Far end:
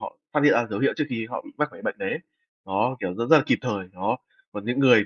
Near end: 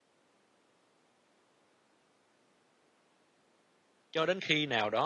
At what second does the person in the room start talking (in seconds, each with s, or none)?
4.1 s